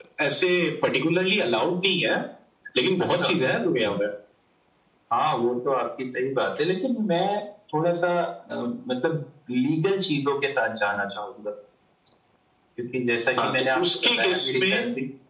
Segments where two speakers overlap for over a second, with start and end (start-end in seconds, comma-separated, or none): 13.4-14.8